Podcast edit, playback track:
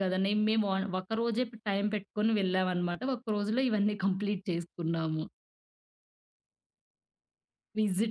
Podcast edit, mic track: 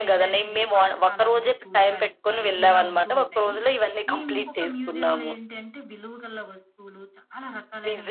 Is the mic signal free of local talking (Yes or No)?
No